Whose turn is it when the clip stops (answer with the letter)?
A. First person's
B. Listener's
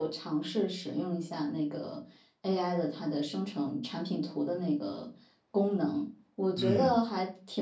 A